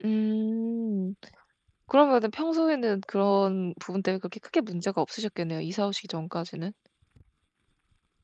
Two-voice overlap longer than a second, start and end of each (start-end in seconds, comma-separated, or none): none